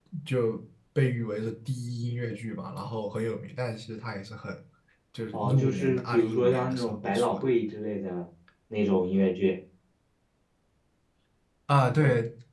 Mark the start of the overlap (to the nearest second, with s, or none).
5 s